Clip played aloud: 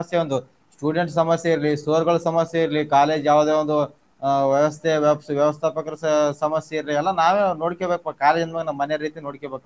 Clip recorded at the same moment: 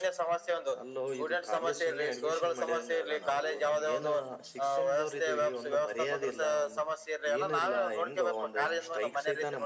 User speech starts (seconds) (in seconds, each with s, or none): 0.8 s